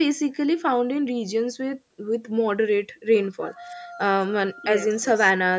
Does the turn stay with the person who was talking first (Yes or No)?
Yes